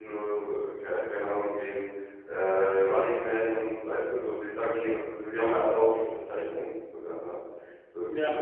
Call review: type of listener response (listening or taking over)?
listening